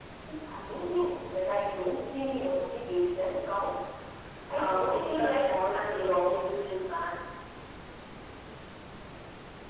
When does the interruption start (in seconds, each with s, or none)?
4.5 s